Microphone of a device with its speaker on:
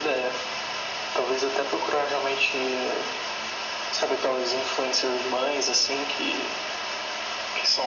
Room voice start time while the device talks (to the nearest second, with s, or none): none